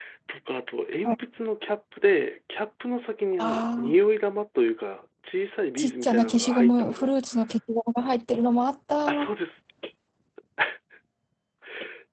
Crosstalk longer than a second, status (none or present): present